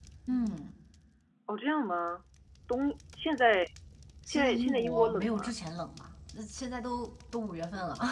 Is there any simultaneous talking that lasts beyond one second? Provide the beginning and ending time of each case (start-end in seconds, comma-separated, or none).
4.3-5.5